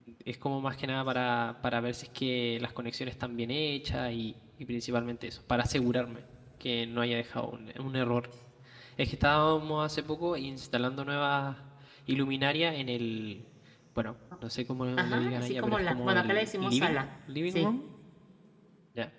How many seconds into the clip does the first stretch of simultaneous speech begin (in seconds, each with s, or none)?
15.0 s